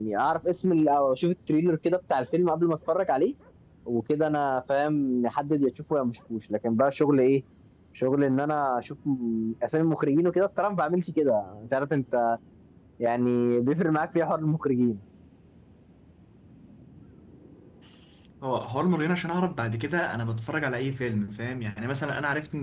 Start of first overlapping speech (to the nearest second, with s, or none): none